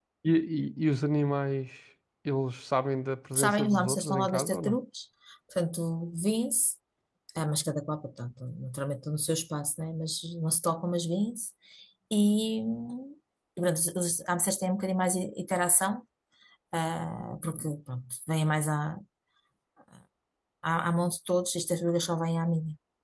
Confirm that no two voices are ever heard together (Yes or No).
No